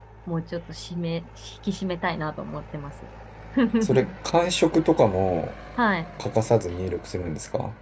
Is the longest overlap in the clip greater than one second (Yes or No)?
No